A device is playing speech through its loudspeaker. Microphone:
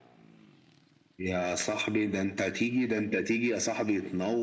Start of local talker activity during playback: none

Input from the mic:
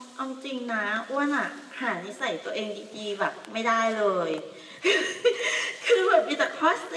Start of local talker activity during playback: none

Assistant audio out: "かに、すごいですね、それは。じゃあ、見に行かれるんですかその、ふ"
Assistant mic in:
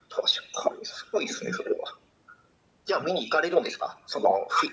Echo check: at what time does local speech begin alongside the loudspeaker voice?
none

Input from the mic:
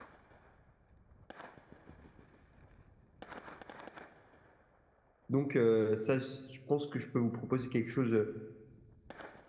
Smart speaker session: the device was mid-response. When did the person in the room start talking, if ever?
5.3 s

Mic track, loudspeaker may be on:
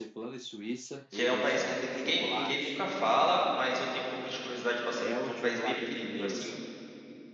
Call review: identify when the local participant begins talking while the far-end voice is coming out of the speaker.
1.1 s

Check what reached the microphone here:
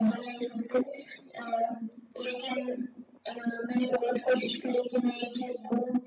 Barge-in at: none

